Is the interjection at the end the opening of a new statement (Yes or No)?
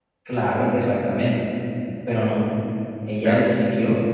No